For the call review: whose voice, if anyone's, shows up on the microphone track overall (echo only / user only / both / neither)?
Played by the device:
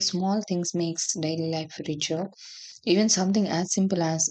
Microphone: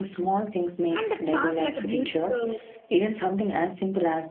both